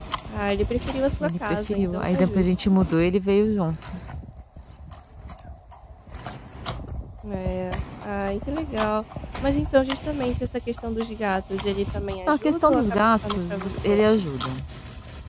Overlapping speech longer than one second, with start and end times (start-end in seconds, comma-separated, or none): 1.2-2.5, 12.3-14.0